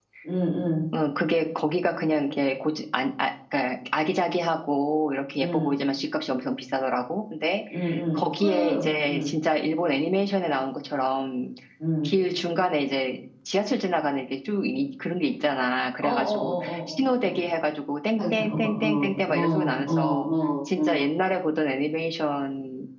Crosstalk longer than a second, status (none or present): present